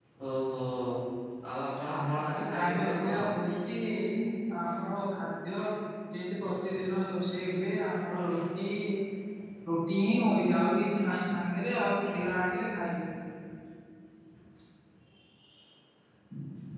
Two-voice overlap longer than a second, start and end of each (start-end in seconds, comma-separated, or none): 2.0-3.2